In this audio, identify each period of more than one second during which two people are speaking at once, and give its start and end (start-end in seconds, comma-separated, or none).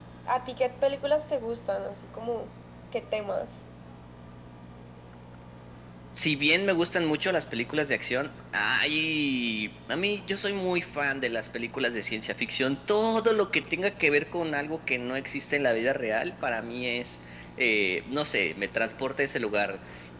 none